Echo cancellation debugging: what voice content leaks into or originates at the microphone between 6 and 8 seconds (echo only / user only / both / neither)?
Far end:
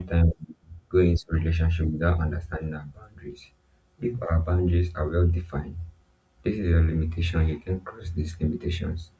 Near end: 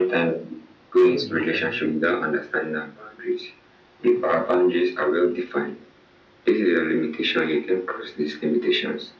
echo only